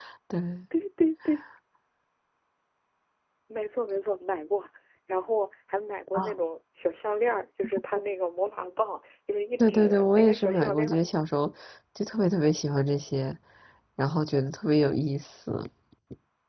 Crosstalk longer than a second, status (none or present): present